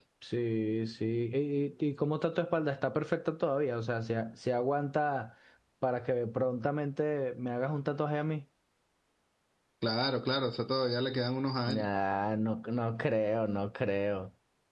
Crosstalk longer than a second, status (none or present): none